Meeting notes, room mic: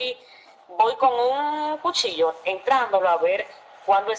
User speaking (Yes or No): No